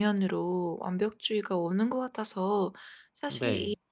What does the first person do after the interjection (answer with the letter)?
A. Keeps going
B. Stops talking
A